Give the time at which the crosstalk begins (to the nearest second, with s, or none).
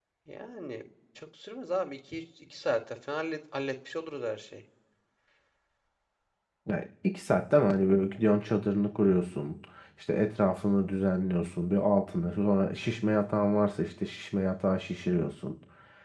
none